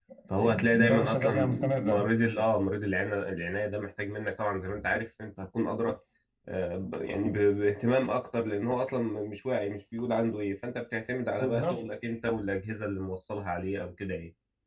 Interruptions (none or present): present